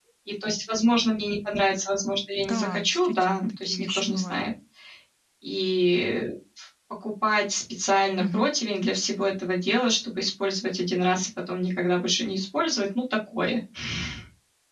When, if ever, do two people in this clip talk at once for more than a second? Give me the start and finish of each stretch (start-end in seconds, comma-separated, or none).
2.4-4.4